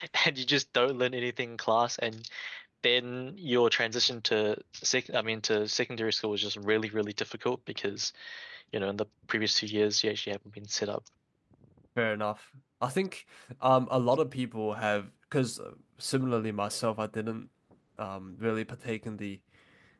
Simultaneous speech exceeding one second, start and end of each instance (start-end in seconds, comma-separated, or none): none